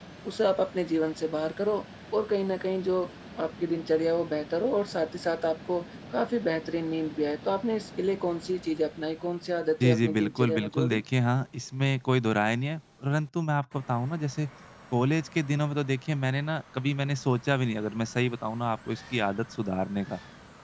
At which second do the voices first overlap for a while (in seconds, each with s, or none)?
9.8 s